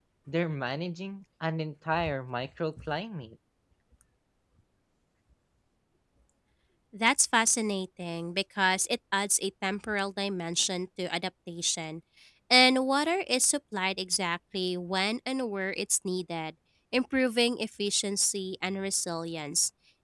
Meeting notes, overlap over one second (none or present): none